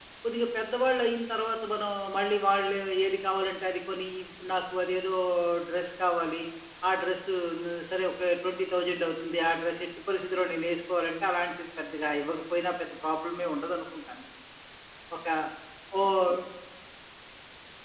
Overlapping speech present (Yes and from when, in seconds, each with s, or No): No